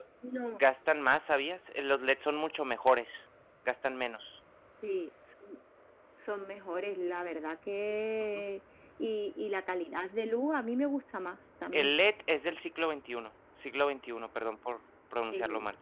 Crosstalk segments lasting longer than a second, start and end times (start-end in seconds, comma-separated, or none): none